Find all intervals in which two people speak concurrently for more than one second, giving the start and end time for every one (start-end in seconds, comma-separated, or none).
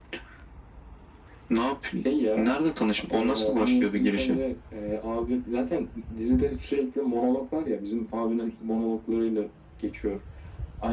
3.1-4.4